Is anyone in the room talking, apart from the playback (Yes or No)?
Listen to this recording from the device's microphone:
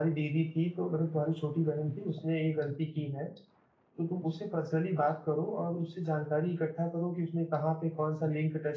No